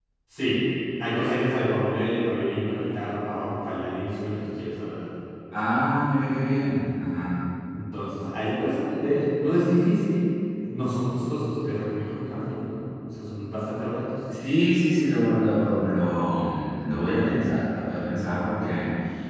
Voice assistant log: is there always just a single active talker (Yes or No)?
Yes